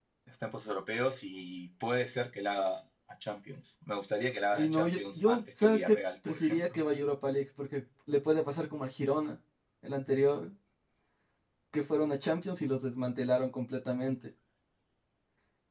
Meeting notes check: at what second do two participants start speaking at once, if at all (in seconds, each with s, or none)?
4.5 s